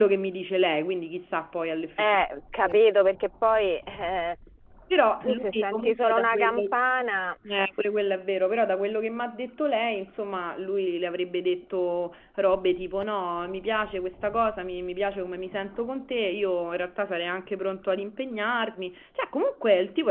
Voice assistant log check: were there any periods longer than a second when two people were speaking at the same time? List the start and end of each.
5.2-6.6

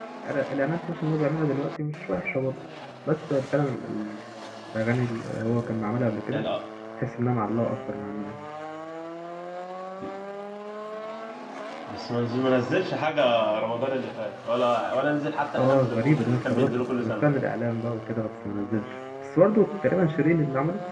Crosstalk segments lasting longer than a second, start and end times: 15.6-17.2

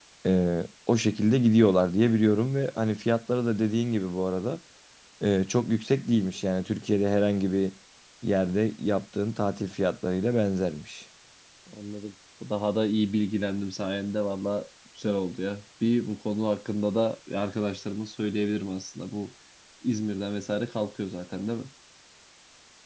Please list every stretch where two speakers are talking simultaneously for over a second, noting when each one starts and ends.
none

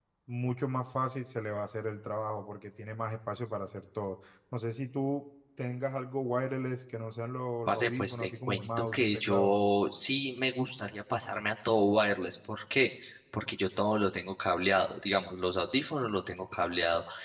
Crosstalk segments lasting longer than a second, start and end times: 7.7-9.6

